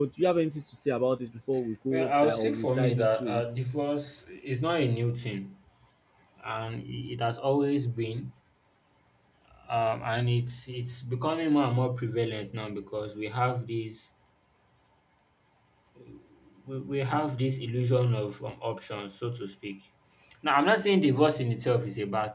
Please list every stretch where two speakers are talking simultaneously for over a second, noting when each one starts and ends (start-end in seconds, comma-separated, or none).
1.9-3.5